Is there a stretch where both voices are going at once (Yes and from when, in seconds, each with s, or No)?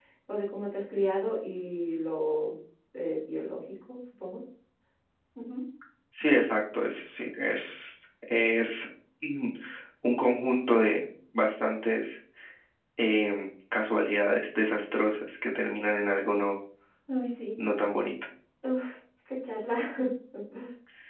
No